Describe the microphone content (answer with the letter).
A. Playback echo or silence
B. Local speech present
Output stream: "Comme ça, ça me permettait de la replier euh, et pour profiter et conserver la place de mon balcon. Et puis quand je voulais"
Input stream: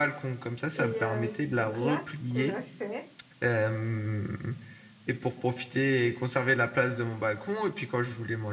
B